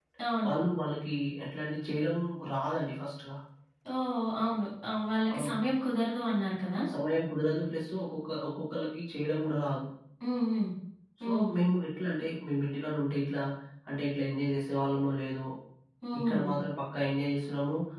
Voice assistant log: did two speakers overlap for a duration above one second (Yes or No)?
No